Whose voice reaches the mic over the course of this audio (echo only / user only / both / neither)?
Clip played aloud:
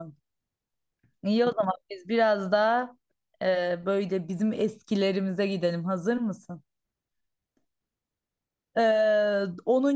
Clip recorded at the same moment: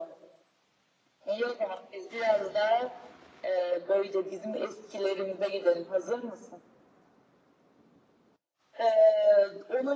echo only